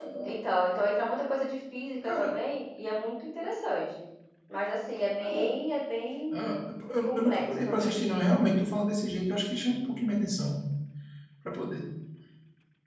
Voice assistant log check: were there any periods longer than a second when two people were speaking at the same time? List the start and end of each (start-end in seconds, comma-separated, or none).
7.0-8.4